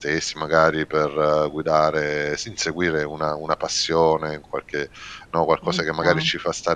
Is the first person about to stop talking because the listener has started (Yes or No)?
No